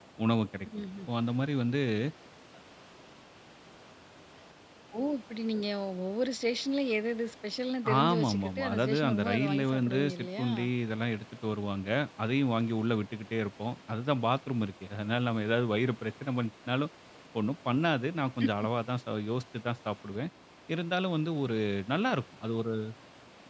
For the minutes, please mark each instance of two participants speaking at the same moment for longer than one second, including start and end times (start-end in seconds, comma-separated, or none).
8.0-10.4